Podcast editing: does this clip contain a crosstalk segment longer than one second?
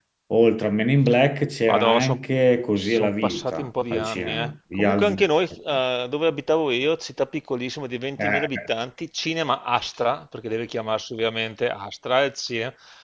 Yes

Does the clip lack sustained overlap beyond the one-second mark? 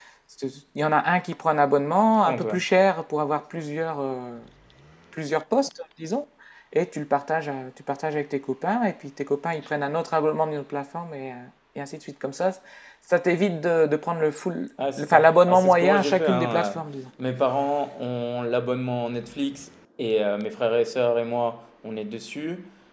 No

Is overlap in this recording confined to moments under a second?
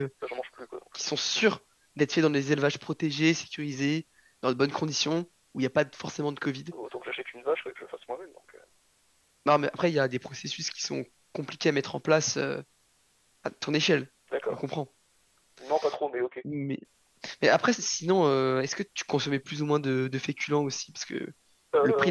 Yes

